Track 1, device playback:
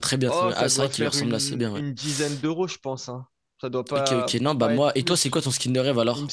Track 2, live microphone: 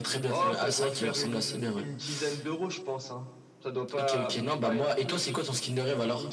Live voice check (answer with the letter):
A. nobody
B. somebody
A